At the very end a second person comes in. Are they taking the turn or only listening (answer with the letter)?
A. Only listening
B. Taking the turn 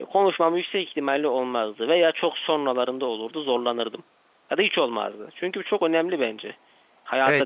B